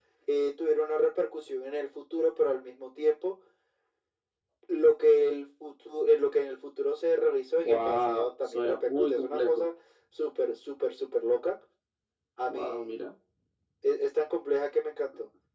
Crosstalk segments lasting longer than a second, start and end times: 7.6-9.6

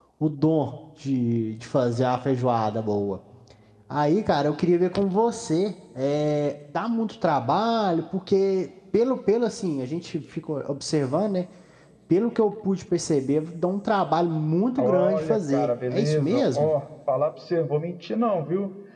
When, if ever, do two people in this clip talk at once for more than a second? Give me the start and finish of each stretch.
14.8-16.7

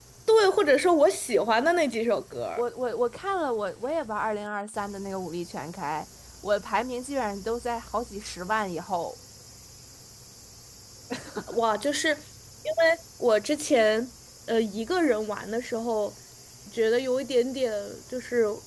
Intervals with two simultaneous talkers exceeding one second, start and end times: none

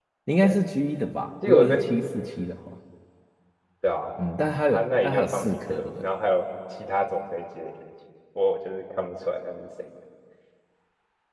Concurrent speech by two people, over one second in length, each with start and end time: 4.7-6.0

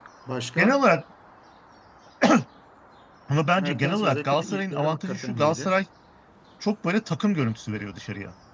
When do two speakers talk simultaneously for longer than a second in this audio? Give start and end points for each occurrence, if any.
3.6-5.8

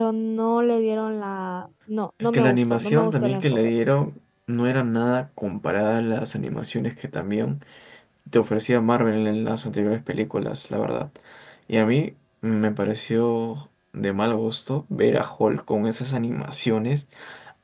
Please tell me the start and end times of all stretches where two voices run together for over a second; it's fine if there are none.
2.2-3.4

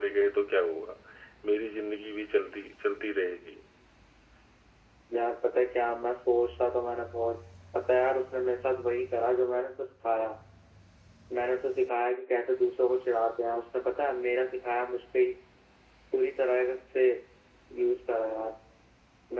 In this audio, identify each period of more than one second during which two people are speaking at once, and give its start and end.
none

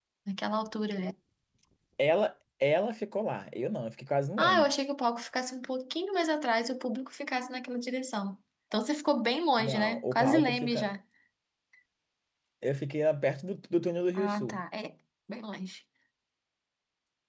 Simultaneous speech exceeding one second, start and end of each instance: 9.6-10.9

